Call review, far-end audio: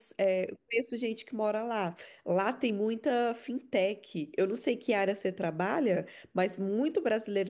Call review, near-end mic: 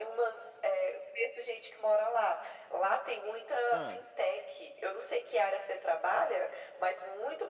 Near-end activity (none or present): present